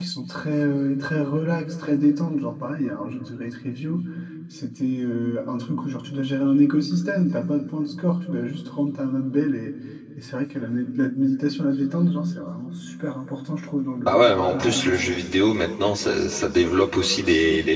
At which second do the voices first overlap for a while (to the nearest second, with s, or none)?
14 s